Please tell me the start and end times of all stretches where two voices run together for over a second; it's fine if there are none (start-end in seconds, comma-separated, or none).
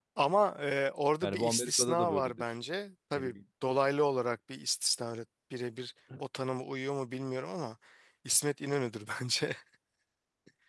1.2-2.4